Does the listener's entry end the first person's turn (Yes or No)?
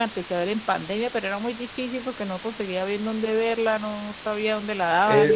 Yes